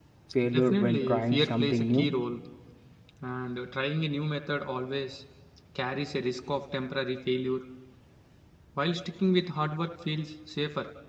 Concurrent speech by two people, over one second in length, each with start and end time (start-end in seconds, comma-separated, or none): 0.5-2.1